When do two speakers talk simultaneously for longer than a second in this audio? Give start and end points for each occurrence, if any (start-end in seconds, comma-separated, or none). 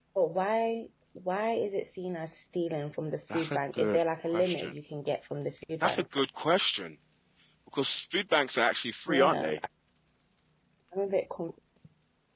3.3-4.8